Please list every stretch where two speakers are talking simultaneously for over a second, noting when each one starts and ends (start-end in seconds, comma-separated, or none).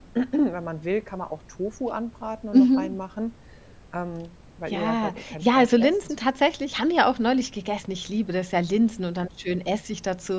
4.7-5.9